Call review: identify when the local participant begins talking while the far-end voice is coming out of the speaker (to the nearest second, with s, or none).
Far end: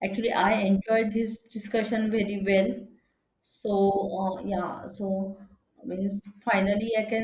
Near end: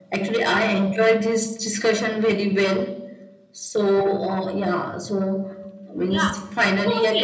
6 s